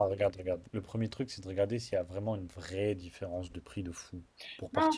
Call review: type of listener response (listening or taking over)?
taking over